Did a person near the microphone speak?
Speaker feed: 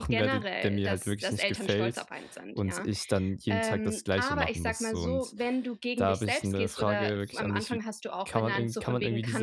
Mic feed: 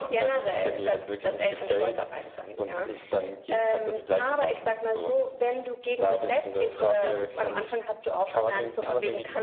No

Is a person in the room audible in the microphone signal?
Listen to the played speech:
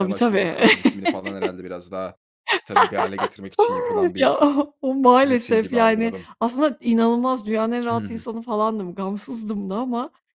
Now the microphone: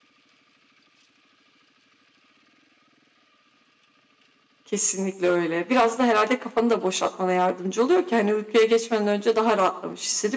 Yes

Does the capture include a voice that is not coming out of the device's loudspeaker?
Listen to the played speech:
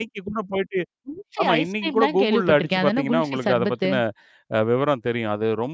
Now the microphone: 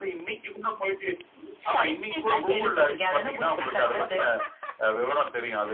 No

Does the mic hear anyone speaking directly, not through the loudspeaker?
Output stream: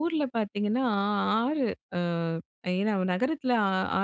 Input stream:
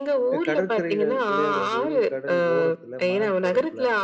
Yes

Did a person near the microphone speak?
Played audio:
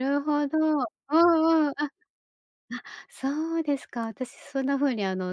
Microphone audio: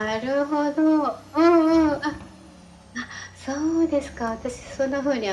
No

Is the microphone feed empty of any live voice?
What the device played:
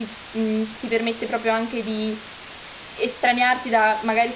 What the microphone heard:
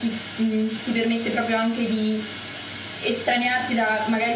Yes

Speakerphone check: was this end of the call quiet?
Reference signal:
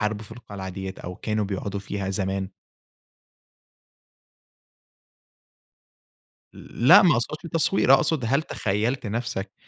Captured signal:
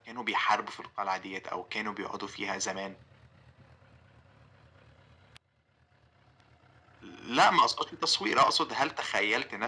Yes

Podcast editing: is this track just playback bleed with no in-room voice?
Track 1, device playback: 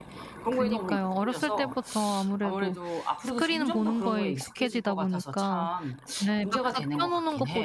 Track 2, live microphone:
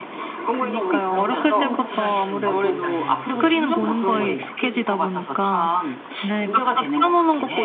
No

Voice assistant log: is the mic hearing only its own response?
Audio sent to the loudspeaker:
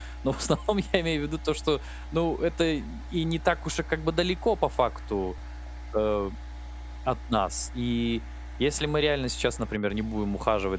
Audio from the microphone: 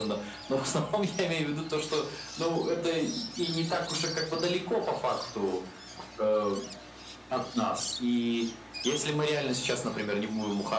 Yes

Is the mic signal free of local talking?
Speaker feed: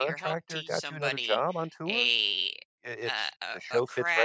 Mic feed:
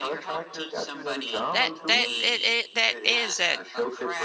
No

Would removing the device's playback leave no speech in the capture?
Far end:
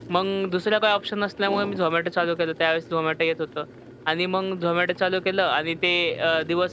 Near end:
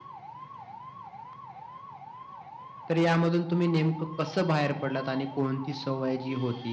No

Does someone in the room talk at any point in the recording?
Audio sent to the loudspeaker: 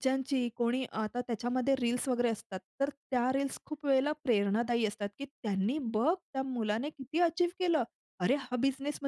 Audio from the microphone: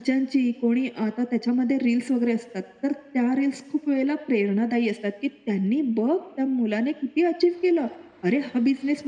No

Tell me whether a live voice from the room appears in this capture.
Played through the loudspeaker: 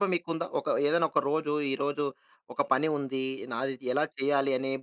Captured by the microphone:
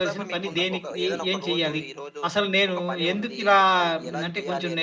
Yes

